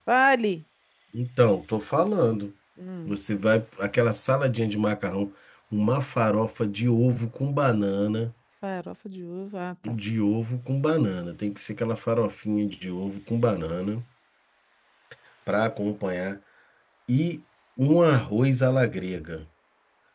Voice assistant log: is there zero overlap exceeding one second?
Yes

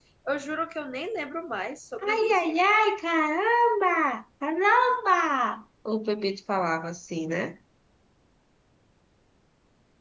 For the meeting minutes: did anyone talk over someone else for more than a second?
No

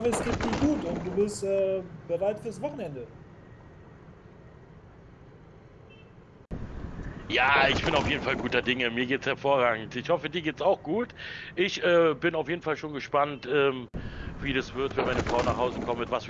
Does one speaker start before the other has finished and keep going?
No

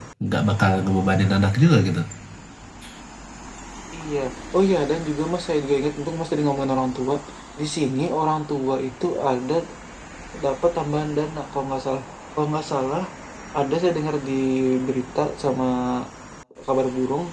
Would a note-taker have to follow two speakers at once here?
No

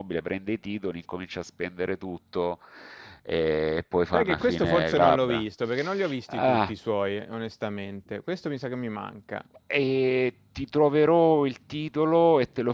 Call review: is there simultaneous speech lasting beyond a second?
Yes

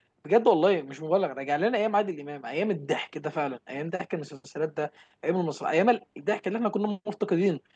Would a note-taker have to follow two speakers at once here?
No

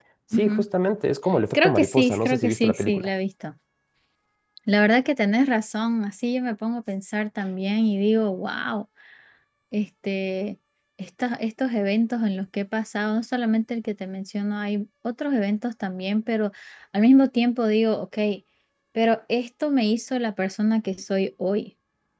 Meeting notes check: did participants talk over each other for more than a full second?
Yes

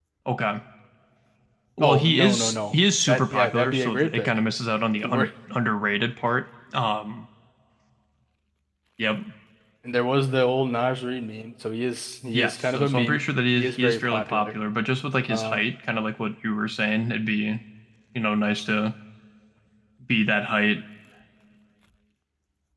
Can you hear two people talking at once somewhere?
Yes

